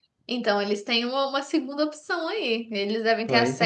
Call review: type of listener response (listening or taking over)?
listening